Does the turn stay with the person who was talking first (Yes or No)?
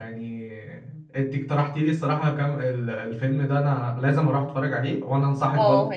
No